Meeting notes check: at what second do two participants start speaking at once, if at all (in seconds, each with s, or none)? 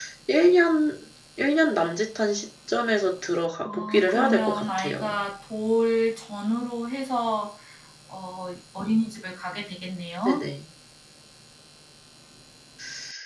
3.6 s